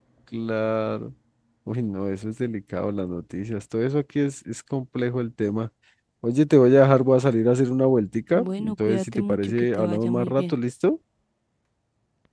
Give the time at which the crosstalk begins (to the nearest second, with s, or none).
8 s